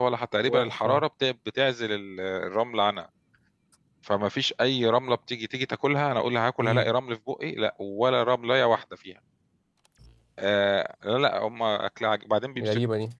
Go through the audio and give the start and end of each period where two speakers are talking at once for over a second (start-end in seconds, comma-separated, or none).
none